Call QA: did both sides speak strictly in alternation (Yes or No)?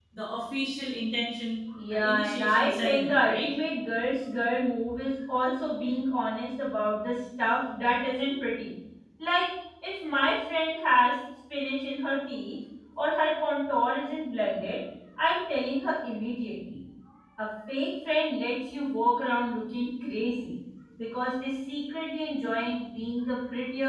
No